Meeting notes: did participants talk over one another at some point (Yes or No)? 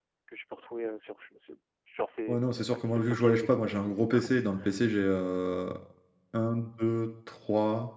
Yes